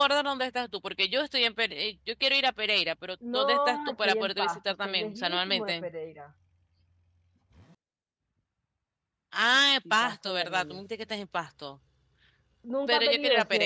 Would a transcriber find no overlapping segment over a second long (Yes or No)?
No